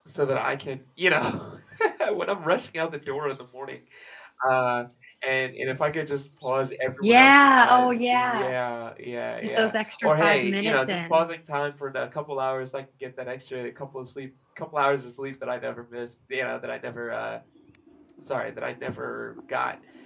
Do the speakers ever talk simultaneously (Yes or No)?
Yes